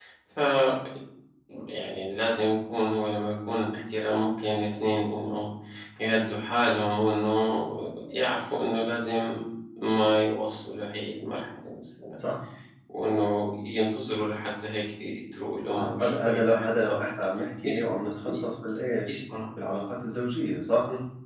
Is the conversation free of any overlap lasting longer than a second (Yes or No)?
No